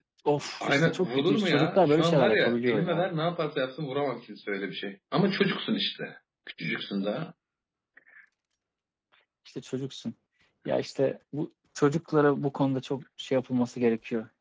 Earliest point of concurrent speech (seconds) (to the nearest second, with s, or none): 1 s